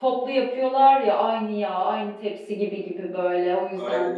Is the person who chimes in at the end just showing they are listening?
No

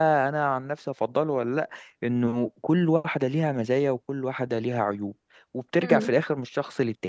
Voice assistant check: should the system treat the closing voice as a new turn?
No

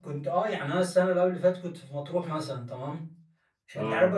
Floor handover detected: No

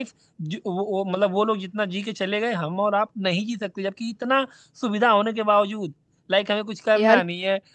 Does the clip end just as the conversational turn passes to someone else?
No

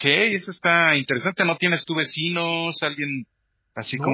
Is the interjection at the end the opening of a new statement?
Yes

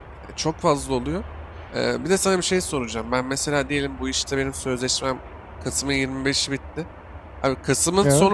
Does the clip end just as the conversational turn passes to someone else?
No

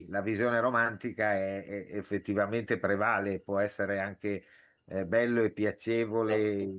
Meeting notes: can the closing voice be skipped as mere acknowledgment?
Yes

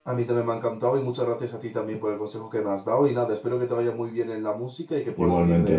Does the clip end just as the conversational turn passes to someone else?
Yes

